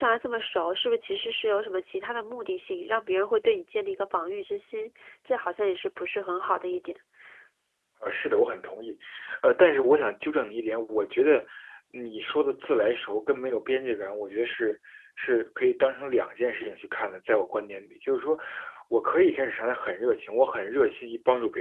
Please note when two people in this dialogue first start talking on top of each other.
none

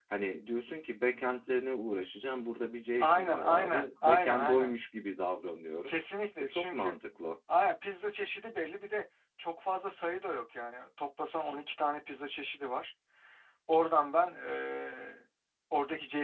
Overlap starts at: 3.0 s

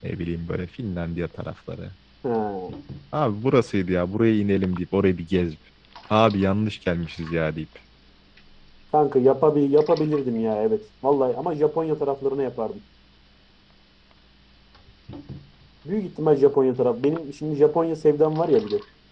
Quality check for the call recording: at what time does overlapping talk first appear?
none

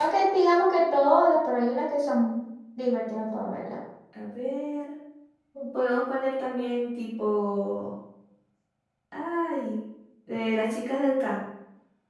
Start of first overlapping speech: none

